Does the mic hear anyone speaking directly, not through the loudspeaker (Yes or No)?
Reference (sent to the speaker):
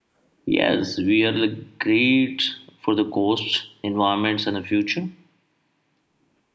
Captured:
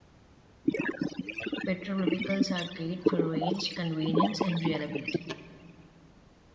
Yes